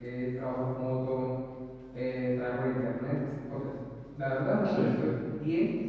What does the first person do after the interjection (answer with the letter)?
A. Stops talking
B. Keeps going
B